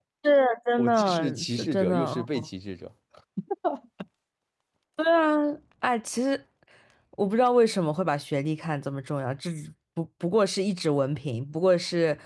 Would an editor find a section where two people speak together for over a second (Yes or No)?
Yes